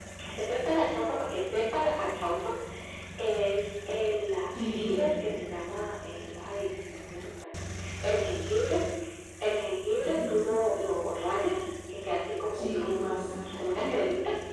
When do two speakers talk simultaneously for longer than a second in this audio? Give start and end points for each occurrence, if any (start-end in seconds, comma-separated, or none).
12.5-13.8